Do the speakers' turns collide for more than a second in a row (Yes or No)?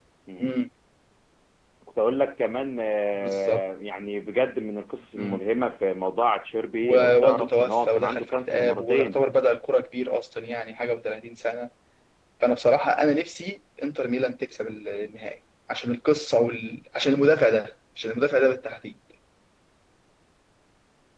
Yes